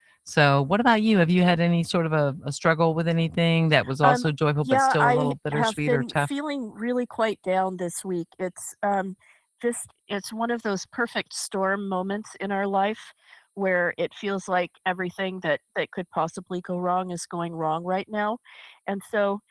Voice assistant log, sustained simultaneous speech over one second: present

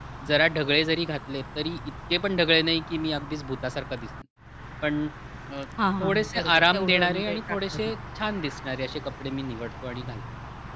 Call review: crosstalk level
present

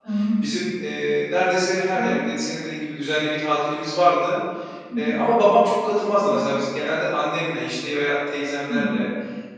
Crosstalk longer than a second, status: none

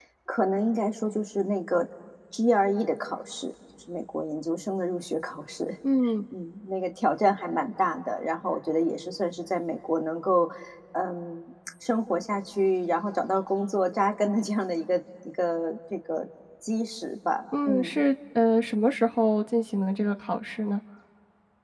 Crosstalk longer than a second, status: none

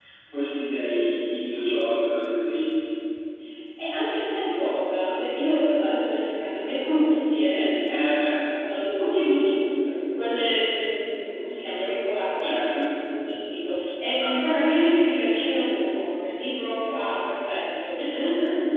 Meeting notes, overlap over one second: none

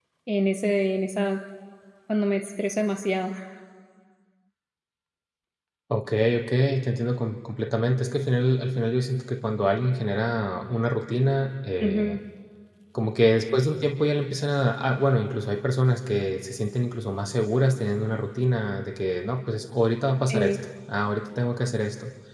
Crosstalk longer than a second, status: none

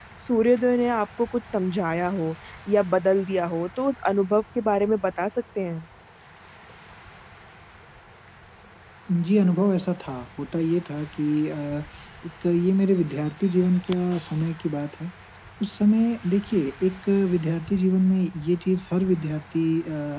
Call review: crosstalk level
none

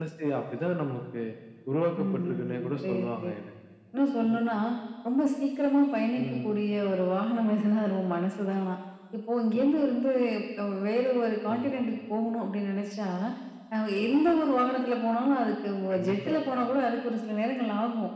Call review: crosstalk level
present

